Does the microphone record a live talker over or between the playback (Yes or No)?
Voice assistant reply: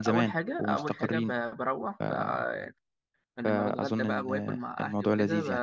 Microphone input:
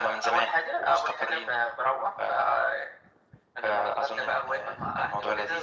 No